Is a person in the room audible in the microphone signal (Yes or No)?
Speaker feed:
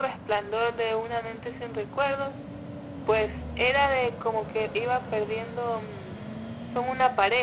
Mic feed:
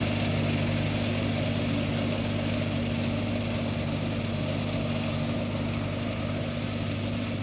No